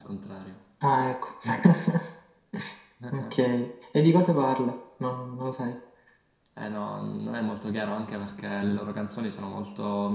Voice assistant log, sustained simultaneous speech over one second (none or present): none